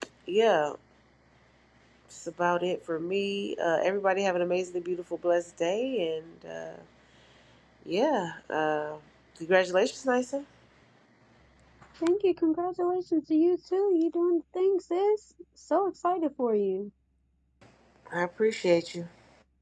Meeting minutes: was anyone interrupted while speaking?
No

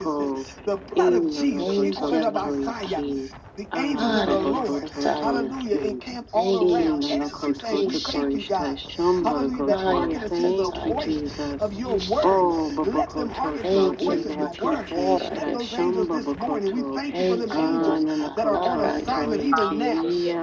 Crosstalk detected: Yes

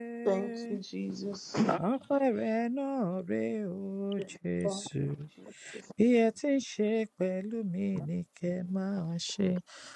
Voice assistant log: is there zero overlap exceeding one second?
Yes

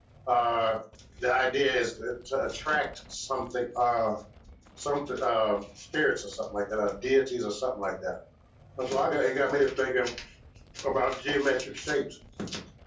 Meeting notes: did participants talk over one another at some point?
No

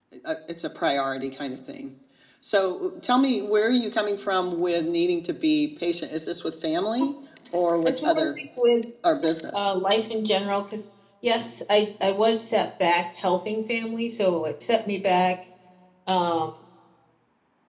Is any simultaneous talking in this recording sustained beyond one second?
No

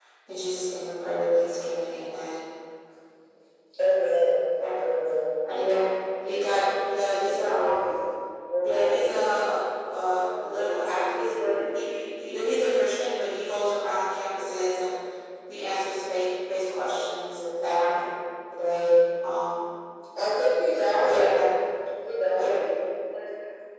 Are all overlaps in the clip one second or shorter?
No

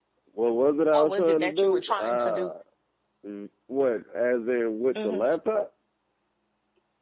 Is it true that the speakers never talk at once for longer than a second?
No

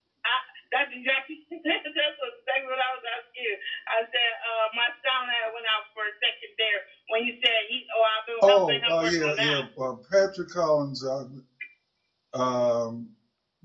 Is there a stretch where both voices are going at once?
Yes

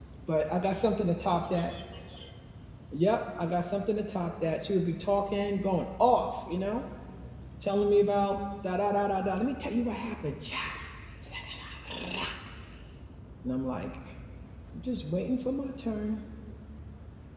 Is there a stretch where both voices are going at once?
No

